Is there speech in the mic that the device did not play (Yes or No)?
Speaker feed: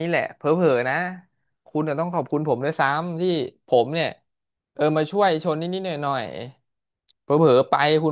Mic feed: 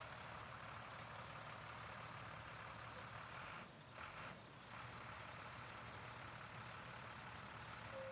No